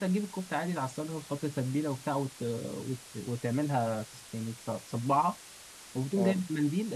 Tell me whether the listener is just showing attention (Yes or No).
Yes